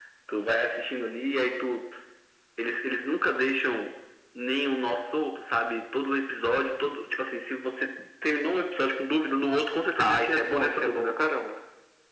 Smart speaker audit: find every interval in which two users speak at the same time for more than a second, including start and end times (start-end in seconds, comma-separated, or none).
10.0-11.2